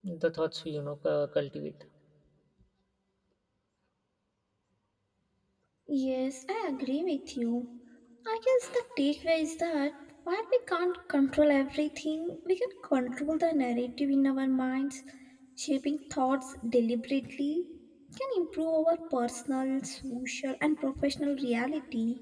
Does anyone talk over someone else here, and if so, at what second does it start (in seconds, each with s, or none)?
none